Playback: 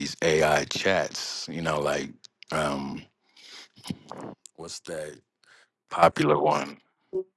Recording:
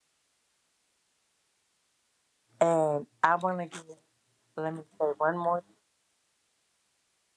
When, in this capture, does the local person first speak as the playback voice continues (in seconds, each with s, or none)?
2.6 s